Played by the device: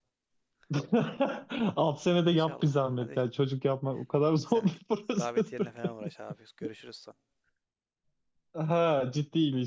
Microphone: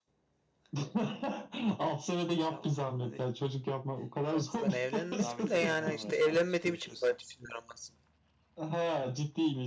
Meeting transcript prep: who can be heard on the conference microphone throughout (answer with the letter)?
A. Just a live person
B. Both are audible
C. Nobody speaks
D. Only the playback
B